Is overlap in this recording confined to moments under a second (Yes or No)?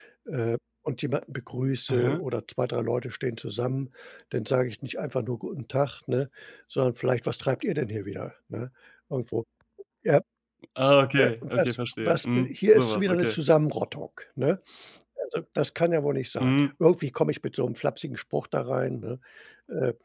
No